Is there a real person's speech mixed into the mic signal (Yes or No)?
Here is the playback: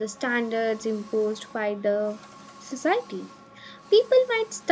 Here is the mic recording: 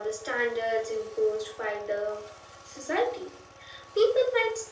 No